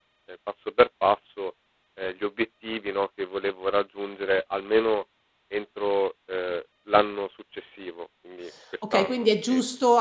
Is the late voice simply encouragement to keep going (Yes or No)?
No